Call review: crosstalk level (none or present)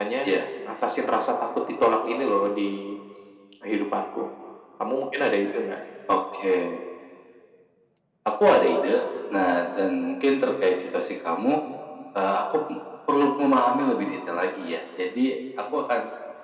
none